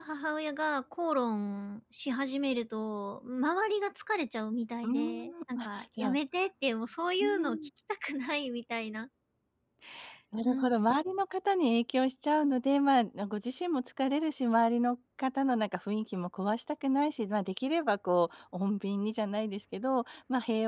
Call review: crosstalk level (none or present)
present